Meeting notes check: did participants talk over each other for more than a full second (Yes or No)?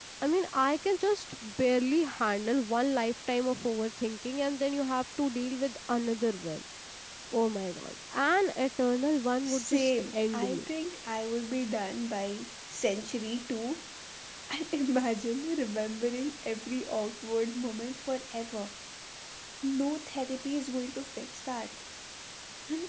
Yes